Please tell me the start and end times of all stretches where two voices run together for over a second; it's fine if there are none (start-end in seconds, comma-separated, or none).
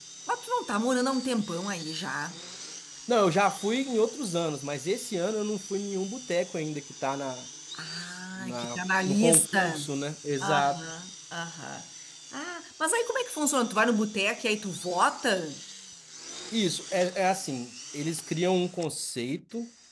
8.4-9.9